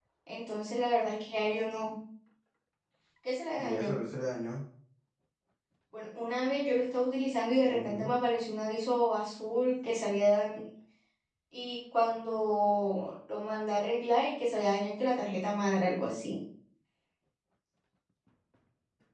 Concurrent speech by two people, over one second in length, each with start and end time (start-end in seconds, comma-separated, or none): none